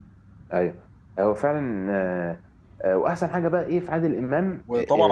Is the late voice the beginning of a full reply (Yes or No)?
Yes